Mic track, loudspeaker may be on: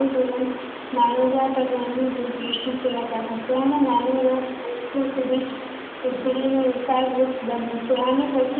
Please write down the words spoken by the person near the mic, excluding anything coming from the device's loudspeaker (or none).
none